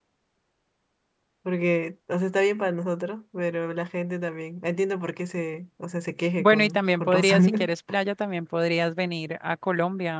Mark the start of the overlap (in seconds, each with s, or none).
6.4 s